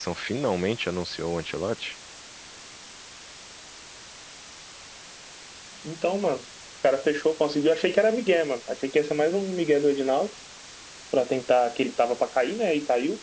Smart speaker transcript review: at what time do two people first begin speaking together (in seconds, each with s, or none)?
none